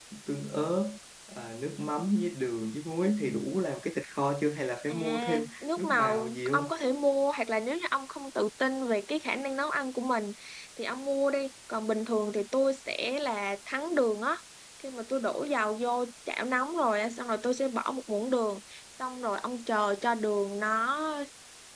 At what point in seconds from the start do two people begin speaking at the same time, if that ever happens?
4.9 s

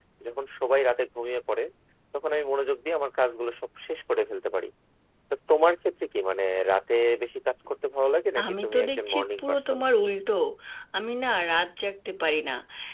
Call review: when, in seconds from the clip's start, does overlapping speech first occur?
8.4 s

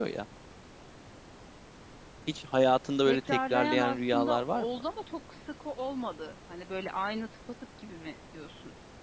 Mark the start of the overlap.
3.1 s

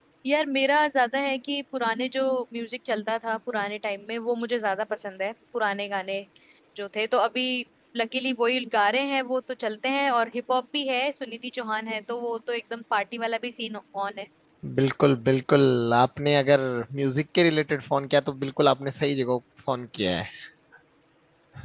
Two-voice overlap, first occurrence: none

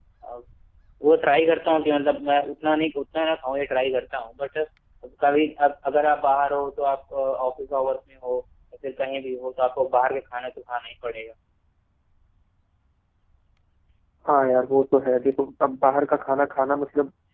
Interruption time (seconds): none

